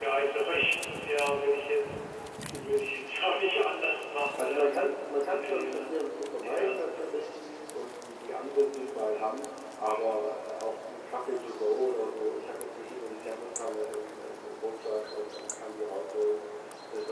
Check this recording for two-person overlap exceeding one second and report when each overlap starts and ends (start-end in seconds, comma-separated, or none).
none